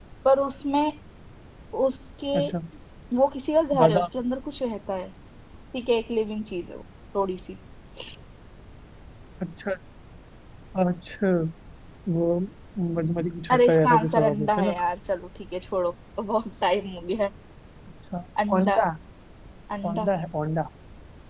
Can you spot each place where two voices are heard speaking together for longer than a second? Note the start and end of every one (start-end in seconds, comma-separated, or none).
13.5-14.7